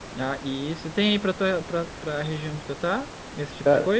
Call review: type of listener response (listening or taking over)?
taking over